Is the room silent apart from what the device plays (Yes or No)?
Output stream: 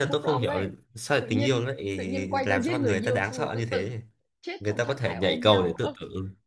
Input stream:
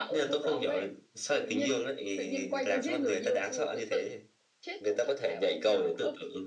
Yes